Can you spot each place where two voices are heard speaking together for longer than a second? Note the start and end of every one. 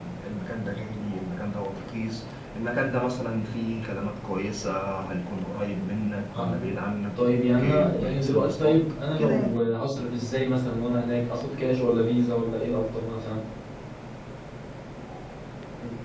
7.7-9.6

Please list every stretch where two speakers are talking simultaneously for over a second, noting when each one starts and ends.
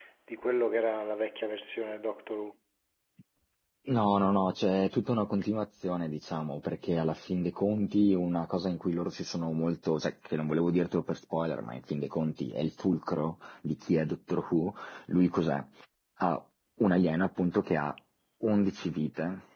none

